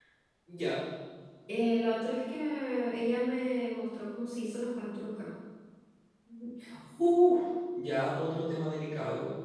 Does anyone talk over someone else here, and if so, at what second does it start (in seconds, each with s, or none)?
none